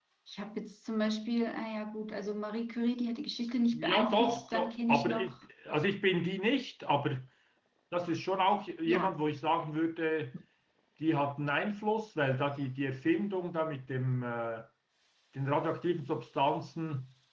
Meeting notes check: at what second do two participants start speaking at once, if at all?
3.7 s

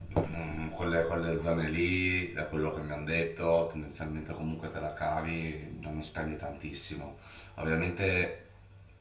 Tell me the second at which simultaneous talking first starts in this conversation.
none

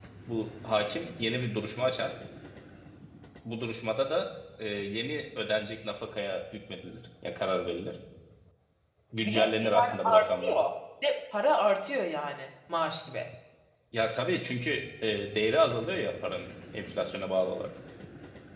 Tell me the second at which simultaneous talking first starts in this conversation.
9.2 s

